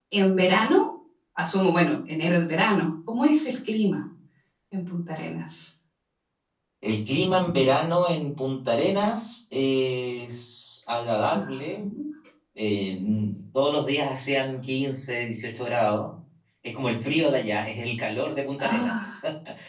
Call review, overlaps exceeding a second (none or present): none